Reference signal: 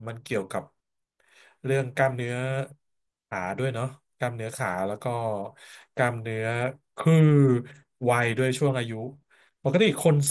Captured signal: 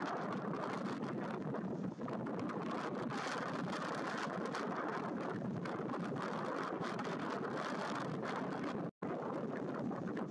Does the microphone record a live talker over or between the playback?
No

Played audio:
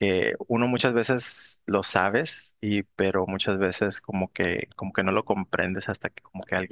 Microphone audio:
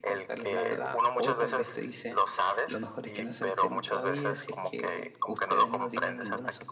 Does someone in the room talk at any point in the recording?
Yes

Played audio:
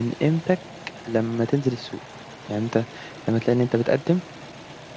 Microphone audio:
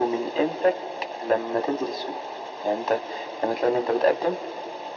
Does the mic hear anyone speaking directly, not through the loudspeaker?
No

